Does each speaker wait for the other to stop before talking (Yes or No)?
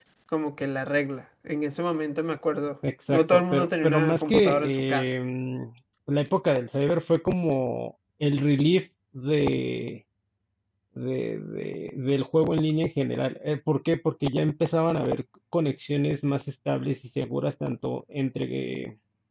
No